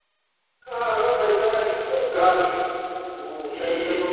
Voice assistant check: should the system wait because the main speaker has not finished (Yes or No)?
No